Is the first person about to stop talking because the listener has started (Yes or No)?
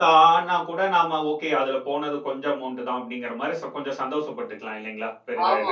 Yes